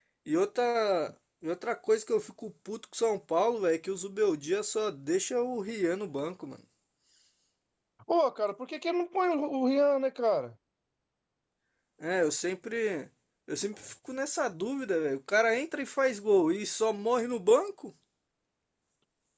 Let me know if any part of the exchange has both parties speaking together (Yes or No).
No